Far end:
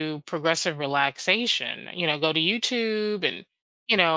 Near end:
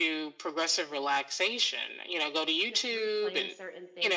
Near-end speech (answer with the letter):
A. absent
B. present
B